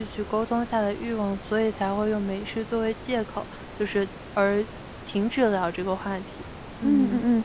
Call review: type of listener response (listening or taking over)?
taking over